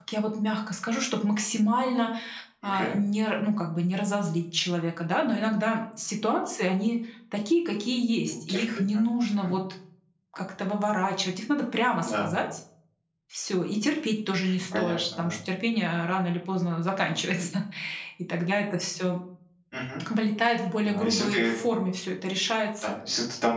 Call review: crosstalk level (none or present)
present